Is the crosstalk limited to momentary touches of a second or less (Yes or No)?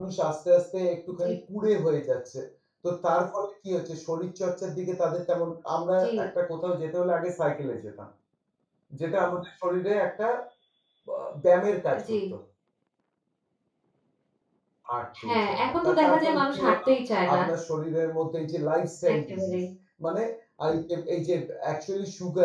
No